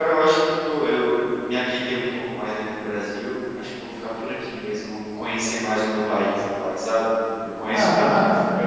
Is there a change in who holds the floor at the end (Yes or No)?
No